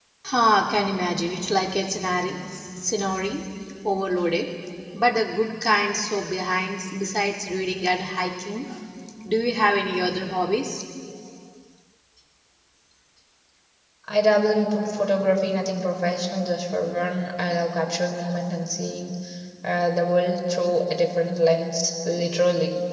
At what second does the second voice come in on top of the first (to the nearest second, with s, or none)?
none